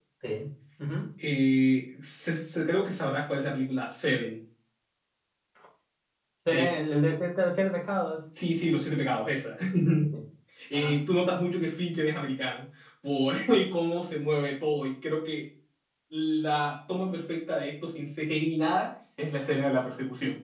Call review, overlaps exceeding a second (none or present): none